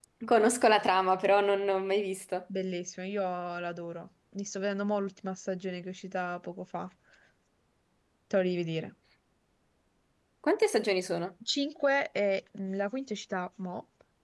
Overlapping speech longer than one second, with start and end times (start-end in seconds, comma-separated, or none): none